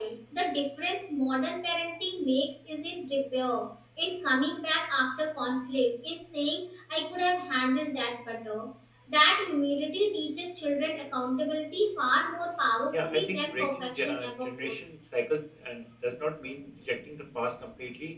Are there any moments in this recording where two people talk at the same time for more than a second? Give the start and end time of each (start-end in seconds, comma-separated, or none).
12.9-14.8